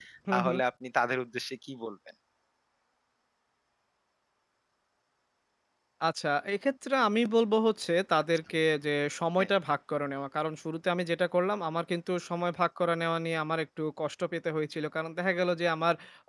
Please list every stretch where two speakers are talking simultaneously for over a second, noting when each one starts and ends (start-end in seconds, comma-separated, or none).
none